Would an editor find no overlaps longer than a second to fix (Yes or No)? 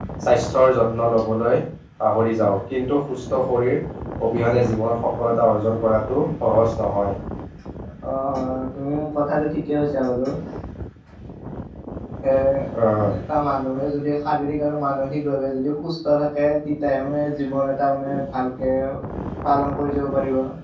Yes